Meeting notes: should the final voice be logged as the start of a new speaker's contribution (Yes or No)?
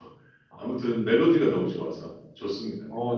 Yes